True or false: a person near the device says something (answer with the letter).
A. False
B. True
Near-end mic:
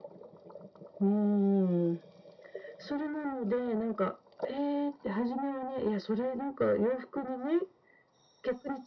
A